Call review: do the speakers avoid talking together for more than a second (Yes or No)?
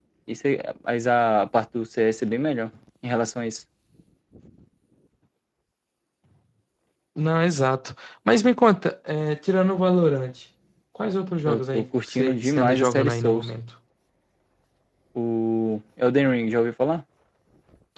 No